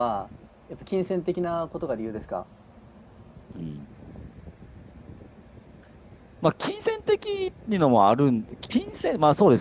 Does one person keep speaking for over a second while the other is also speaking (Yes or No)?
No